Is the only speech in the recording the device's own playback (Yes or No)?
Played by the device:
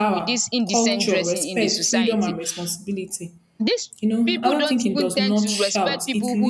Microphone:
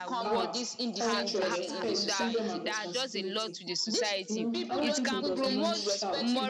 No